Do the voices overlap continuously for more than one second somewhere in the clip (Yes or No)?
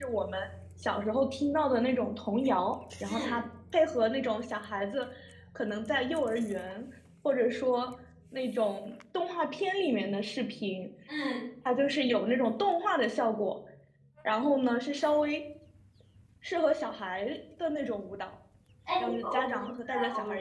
Yes